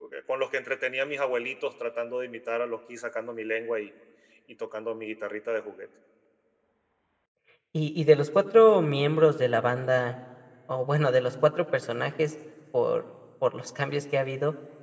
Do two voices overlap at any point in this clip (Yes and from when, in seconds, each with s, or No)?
No